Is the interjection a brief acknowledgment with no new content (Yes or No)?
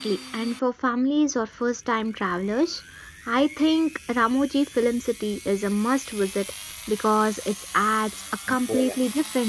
Yes